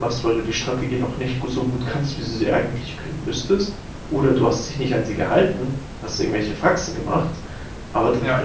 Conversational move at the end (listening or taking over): listening